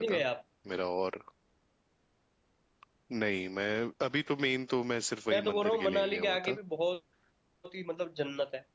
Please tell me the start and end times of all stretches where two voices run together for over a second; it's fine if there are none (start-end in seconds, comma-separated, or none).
5.3-6.6